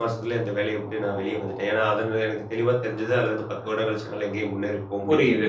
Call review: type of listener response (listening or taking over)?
taking over